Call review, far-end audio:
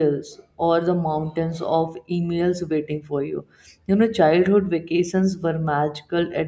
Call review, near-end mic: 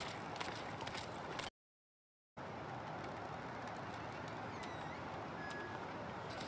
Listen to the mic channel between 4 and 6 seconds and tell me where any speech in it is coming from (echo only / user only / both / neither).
neither